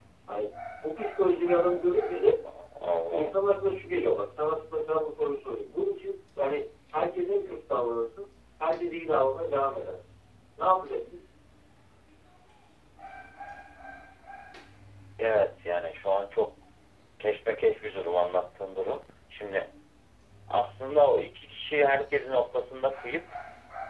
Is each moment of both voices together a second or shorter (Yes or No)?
Yes